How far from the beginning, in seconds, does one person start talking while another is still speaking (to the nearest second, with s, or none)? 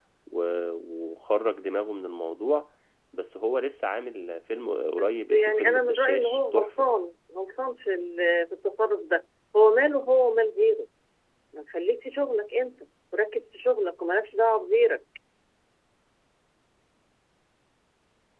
5 s